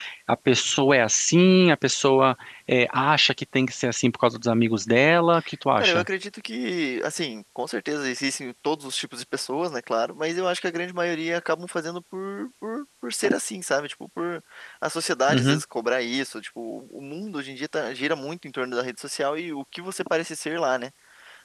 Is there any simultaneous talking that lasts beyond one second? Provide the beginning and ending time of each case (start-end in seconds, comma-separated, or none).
none